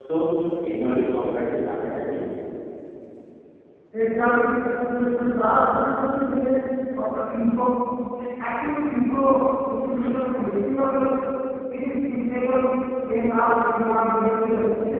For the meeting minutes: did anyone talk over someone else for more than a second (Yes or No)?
No